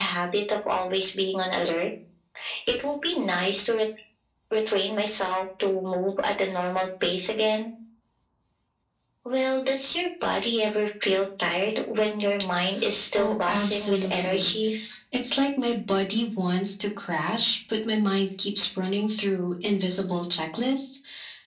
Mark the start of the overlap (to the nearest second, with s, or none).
13 s